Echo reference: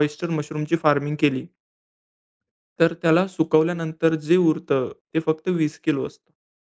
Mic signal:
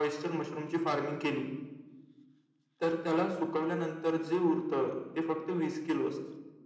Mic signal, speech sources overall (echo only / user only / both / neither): echo only